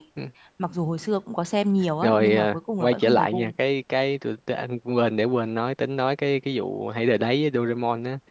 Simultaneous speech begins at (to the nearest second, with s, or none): 2 s